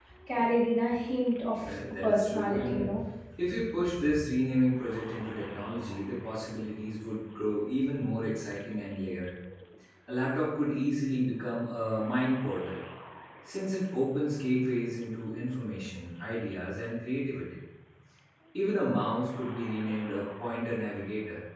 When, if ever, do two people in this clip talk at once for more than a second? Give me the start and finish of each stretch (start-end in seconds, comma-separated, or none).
1.6-2.9